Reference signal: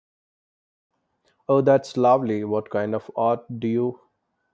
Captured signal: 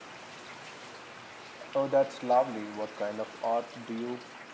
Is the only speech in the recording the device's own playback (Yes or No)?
Yes